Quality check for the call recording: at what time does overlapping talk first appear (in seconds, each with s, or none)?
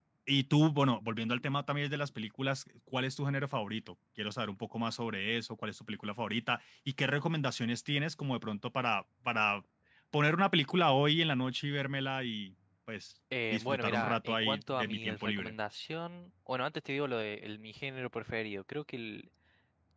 13.3 s